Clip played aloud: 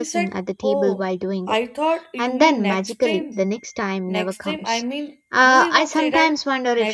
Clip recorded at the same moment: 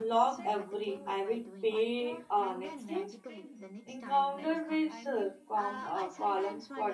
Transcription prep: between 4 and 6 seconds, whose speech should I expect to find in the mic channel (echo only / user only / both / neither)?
both